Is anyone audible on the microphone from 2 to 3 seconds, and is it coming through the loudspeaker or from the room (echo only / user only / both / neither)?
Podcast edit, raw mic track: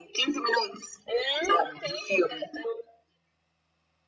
echo only